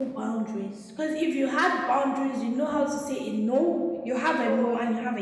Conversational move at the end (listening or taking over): listening